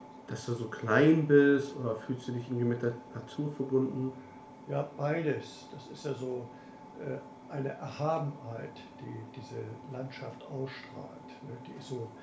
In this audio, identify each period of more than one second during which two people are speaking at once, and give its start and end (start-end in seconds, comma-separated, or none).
none